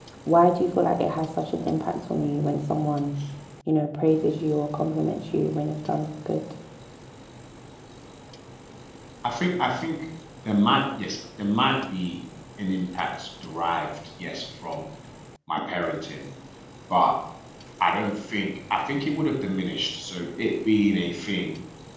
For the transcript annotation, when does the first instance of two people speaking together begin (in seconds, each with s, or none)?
none